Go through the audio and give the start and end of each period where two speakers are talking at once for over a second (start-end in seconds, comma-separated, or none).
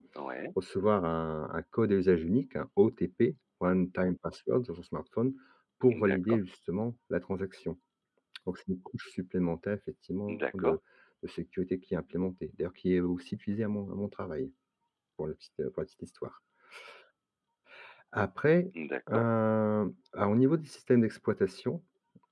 none